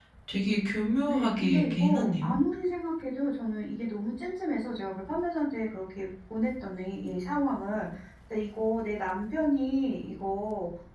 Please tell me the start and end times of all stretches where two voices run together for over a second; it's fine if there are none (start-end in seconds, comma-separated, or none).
1.1-2.4